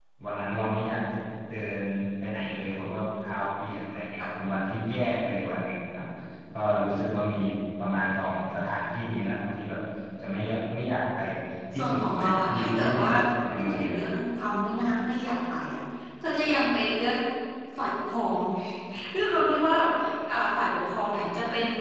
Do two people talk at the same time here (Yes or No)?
Yes